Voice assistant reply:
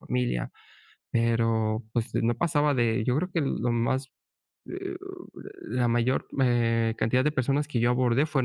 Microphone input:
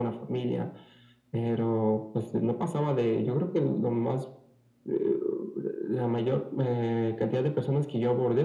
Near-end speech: none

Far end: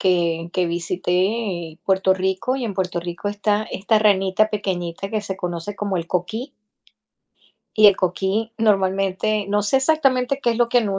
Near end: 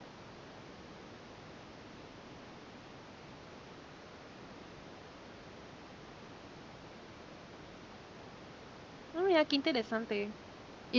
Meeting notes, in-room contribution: present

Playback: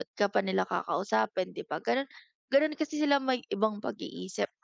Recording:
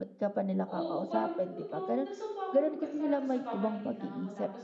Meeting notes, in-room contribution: present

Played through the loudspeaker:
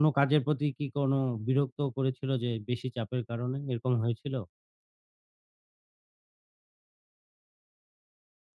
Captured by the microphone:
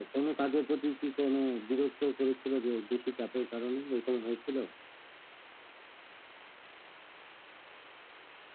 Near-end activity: none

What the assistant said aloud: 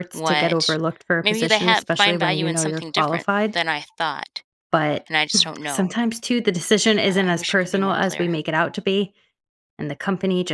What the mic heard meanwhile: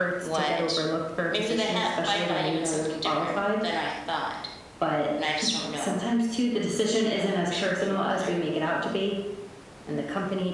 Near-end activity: none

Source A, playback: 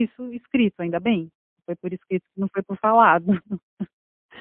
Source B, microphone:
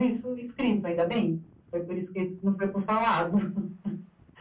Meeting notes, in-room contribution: none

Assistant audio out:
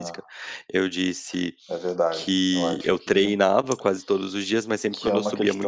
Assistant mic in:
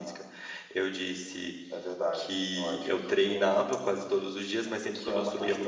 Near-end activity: present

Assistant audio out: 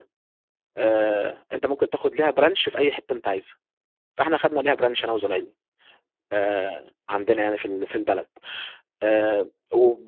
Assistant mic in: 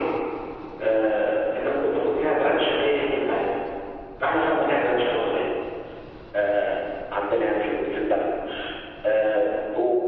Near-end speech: none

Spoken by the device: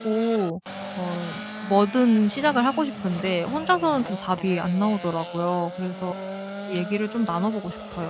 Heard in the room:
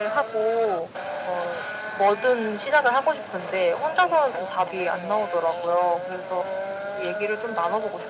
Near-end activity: none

